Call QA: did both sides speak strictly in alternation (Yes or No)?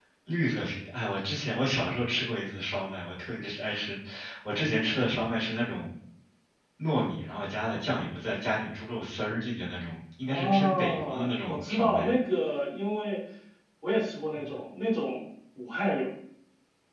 No